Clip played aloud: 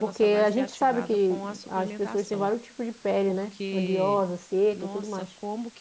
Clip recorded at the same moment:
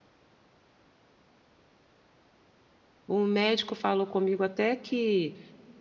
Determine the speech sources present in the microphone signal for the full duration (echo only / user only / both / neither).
user only